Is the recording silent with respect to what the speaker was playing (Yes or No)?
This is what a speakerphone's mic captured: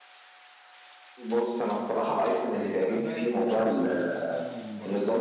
No